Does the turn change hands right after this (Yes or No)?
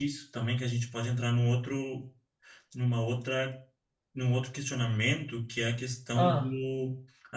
No